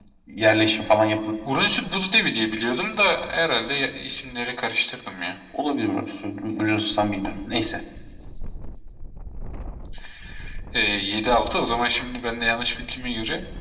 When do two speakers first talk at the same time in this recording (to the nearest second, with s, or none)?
none